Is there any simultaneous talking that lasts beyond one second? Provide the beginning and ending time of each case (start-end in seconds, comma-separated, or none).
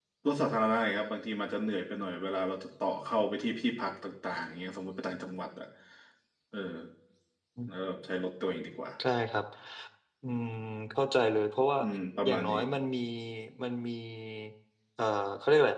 none